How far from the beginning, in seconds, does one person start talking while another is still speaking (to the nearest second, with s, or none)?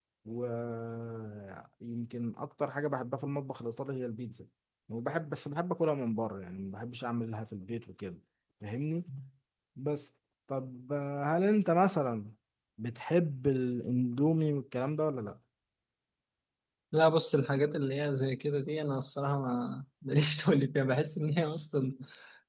none